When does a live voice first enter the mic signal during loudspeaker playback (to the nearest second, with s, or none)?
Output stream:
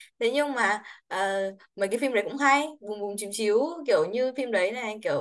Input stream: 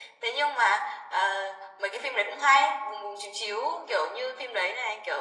none